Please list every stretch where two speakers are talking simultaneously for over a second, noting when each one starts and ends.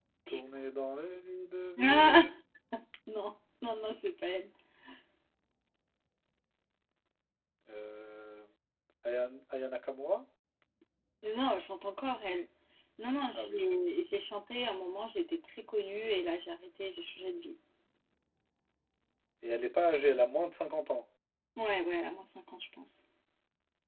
none

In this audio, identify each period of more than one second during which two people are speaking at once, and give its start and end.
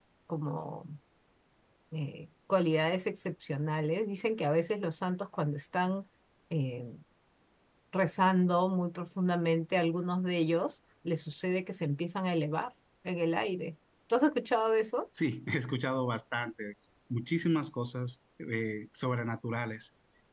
none

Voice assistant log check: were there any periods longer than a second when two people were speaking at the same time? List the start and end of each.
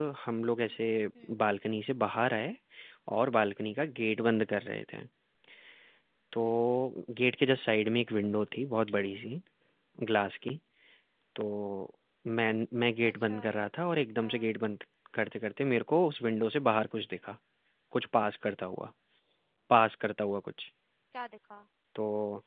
none

